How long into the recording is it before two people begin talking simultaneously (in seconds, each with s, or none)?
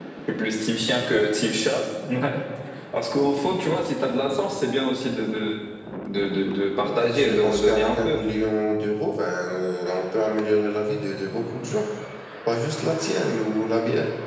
6.8 s